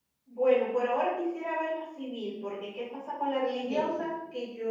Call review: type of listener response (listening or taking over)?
listening